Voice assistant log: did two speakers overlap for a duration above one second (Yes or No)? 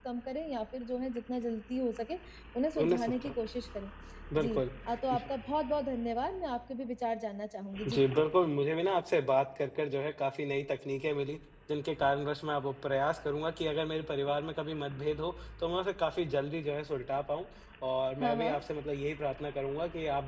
No